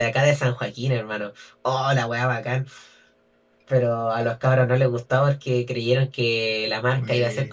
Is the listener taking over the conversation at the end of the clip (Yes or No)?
No